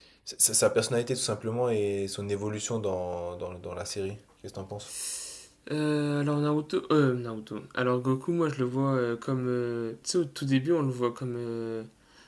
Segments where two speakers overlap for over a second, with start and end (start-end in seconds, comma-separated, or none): none